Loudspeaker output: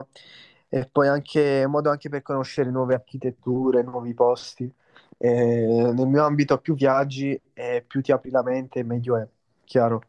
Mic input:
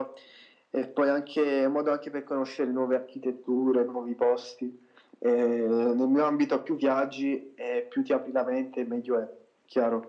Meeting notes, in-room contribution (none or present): none